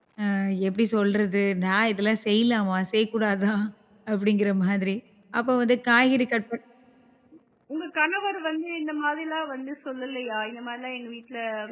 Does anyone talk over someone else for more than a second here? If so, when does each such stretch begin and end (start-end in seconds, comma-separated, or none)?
none